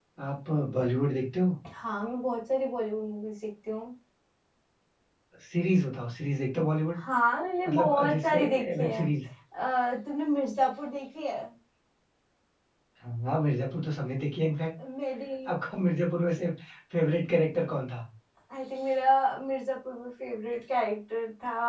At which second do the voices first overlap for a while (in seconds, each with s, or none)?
7.7 s